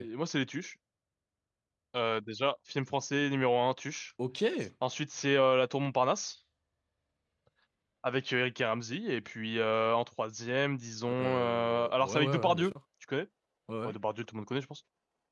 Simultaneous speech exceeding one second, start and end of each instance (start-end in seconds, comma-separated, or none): 11.2-12.7